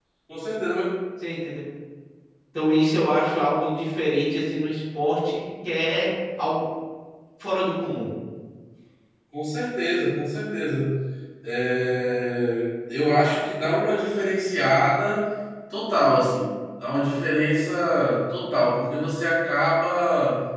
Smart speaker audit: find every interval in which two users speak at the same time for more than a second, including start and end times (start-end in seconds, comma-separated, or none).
none